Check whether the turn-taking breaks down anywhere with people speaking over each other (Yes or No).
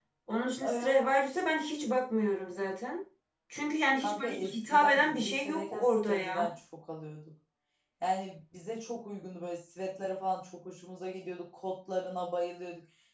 Yes